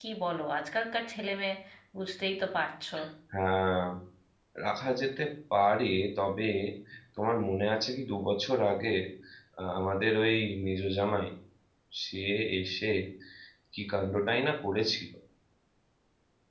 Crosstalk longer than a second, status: none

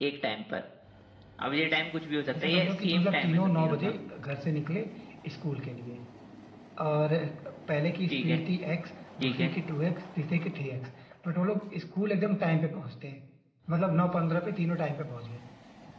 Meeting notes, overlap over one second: present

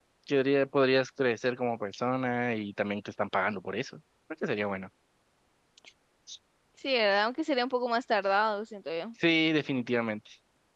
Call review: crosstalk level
none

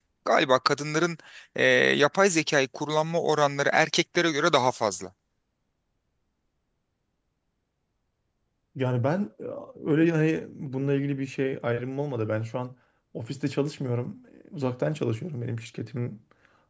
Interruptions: none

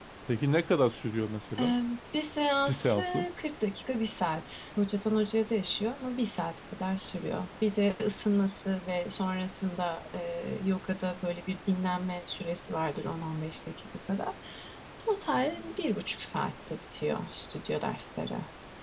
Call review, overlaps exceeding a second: none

